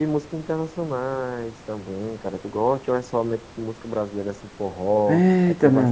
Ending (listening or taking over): taking over